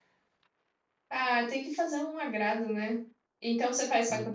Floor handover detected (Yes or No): No